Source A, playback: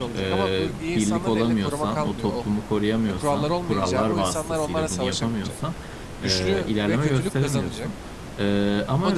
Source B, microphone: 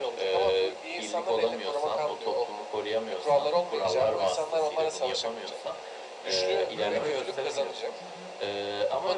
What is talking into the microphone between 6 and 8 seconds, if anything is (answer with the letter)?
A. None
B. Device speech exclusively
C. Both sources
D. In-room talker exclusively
C